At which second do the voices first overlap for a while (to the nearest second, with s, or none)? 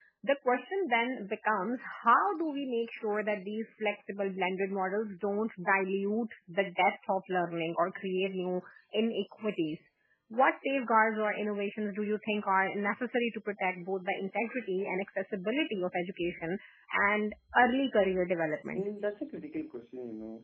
none